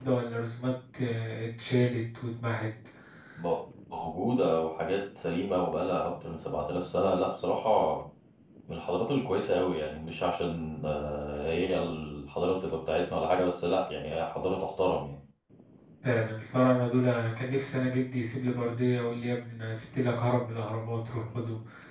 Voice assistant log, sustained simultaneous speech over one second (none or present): none